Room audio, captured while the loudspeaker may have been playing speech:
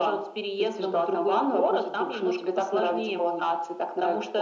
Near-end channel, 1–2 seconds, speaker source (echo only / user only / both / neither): echo only